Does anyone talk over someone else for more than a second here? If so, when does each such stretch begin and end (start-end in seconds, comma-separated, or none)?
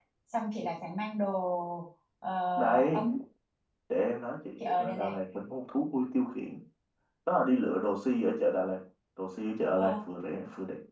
none